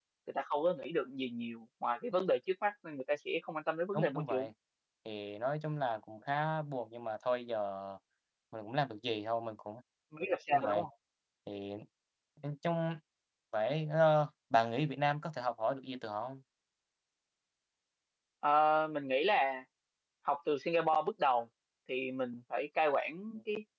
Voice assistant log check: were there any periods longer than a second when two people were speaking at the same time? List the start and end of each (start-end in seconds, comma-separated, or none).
none